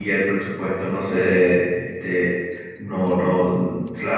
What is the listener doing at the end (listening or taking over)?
listening